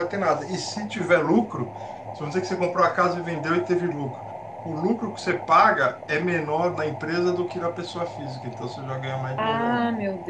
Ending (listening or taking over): taking over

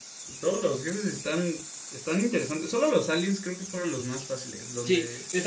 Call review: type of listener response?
taking over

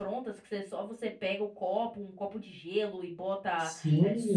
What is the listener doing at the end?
taking over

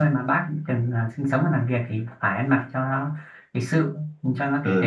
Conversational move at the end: taking over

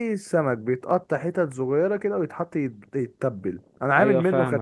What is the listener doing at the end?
listening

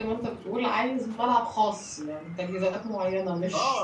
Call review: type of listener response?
taking over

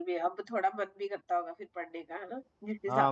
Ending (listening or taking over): taking over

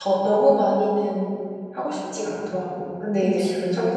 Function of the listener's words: listening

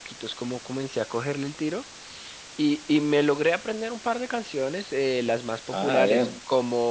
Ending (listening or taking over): listening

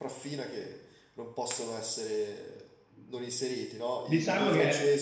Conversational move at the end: taking over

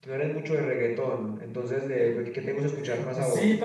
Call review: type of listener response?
taking over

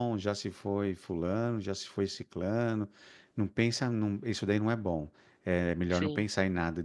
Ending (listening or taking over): listening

